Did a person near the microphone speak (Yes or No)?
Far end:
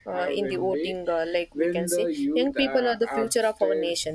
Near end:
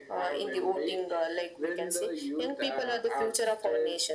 No